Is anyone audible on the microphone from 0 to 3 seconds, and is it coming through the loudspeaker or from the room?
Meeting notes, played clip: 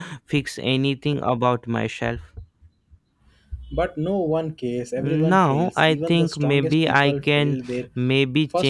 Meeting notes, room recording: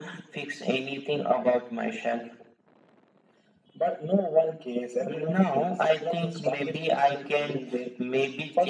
echo only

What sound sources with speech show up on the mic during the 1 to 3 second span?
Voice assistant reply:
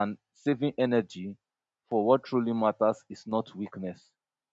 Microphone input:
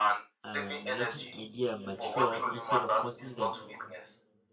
both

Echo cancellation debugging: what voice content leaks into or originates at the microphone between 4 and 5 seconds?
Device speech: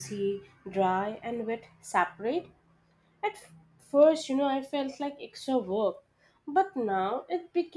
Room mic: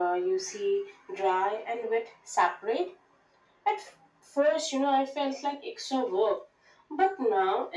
echo only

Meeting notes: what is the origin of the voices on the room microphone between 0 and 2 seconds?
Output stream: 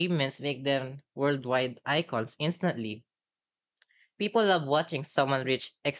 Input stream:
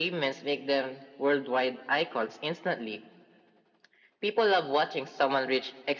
echo only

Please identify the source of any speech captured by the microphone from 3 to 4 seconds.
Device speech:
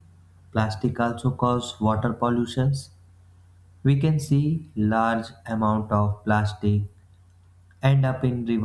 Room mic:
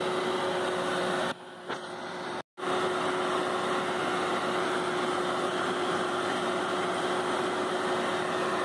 neither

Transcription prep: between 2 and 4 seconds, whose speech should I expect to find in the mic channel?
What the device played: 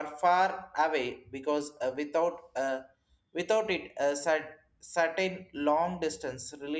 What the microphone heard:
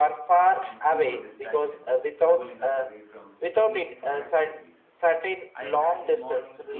both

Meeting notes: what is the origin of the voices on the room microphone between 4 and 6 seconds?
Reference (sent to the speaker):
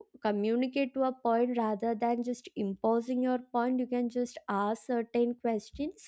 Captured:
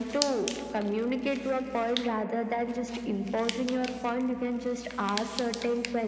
echo only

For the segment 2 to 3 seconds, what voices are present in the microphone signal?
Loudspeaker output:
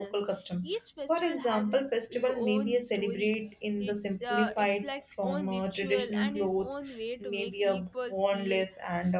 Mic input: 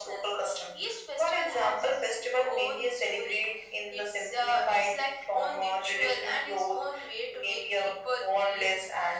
echo only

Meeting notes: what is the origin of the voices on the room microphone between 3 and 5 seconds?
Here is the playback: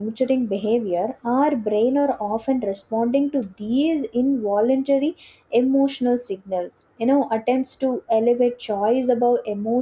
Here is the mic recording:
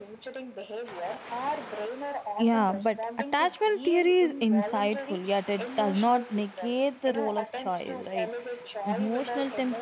both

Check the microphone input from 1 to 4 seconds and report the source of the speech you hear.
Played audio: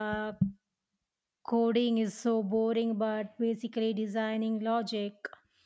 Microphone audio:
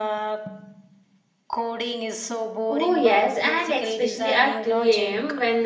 both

